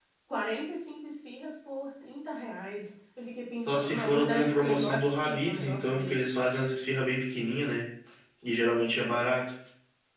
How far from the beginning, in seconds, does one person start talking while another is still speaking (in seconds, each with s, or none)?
3.7 s